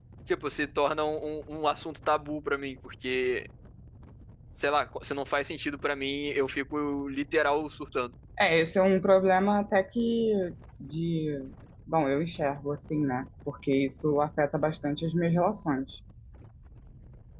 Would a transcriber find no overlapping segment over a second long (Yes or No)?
Yes